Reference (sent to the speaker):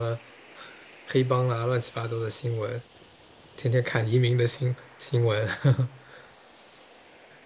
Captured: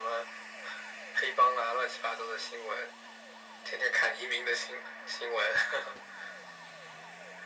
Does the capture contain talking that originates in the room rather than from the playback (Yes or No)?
No